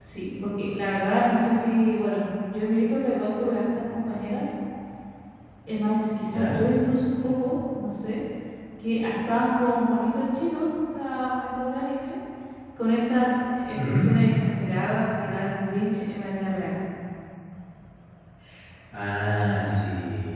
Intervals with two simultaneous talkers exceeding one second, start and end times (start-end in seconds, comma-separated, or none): none